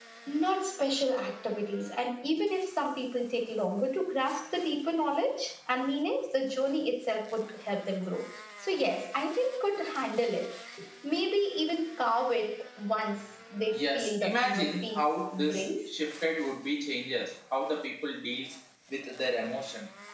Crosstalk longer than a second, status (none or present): present